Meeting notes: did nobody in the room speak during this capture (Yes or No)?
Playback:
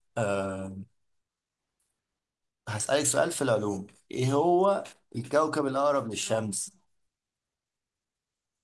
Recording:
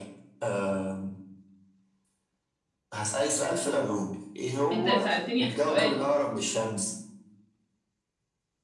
No